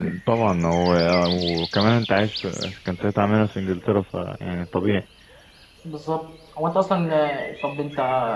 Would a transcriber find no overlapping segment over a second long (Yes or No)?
Yes